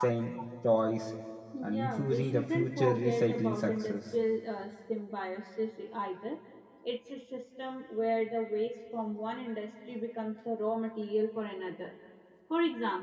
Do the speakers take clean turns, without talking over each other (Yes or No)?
No